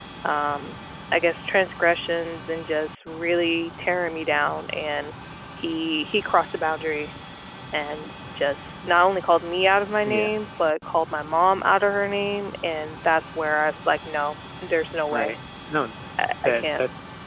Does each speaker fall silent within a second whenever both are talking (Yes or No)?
Yes